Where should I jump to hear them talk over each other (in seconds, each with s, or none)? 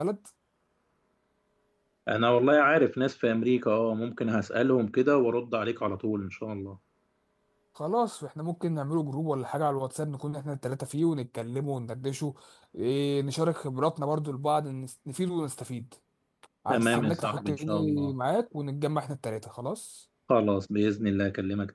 16.7 s